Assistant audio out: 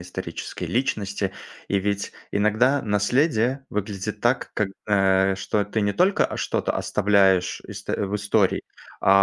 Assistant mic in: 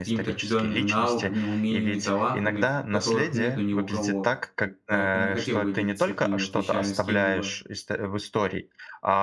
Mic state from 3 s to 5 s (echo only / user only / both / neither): both